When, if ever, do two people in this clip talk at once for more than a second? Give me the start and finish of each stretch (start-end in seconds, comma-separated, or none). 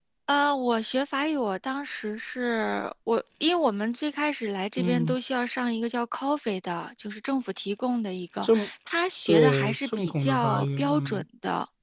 9.3-11.2